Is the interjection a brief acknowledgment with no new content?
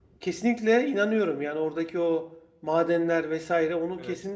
Yes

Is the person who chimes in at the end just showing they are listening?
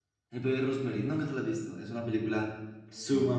Yes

